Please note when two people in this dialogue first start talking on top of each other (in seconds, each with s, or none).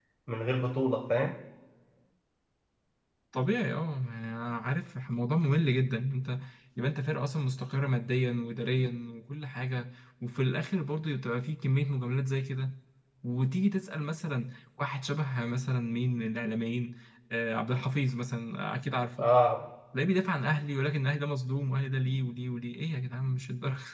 none